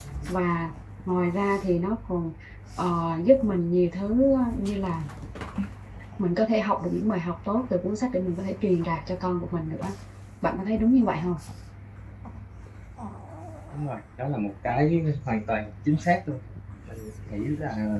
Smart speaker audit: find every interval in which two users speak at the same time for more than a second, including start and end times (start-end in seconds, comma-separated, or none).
none